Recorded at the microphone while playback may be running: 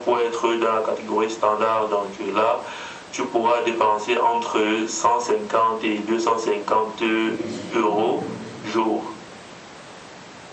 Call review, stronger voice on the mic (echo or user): echo